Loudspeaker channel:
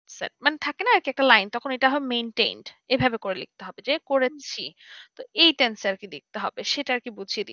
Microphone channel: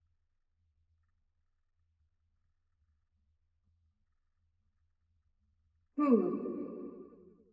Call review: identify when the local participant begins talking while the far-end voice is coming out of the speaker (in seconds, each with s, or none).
6.0 s